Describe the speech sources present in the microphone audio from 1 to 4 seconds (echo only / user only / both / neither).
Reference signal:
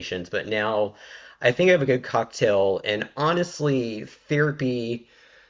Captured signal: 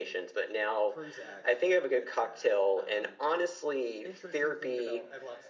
both